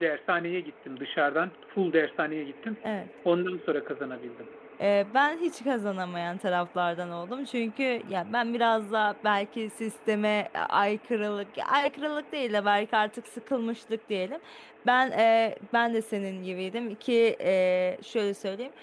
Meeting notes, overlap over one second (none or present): none